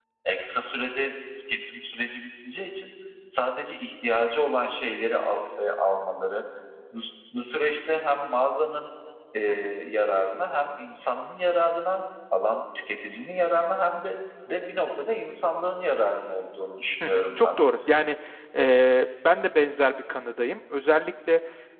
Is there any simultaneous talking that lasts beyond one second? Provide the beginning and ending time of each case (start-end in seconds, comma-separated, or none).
none